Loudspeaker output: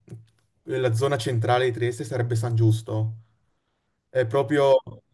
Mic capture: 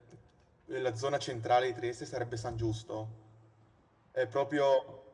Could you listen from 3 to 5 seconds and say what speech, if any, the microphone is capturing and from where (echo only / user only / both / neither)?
echo only